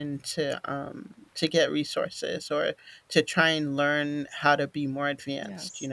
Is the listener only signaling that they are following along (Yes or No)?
Yes